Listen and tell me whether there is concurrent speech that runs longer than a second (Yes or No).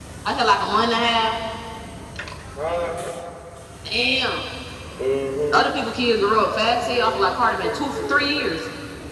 Yes